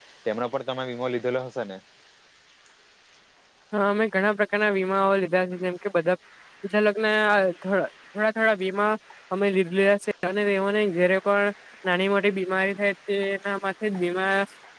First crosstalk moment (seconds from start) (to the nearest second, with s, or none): none